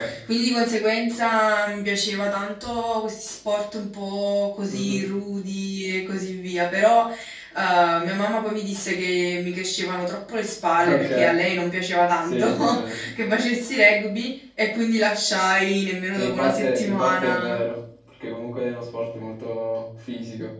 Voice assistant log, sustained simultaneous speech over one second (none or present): present